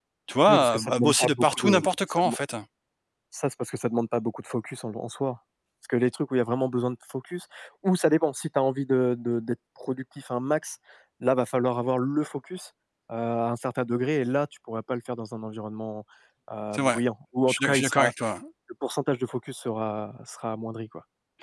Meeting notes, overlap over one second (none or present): present